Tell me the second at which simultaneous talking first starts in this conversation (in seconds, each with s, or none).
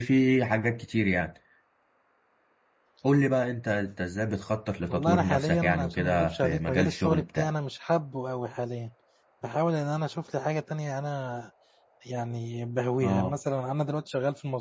4.9 s